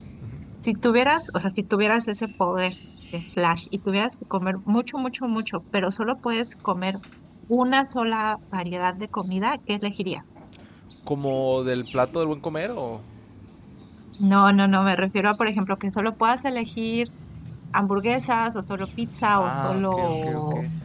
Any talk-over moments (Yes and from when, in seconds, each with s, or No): Yes, from 19.4 s